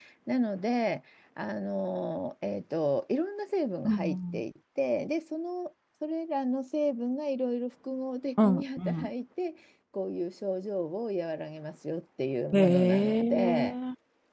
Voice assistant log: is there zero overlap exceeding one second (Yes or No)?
No